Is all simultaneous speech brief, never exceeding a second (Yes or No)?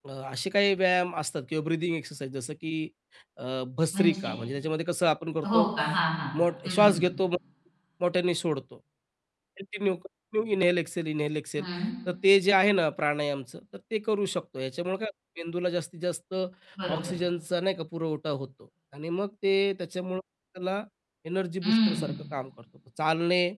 Yes